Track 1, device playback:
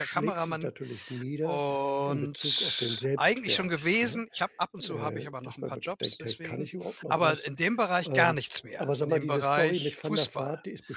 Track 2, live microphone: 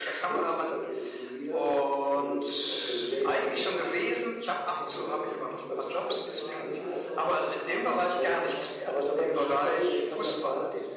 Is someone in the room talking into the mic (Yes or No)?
Yes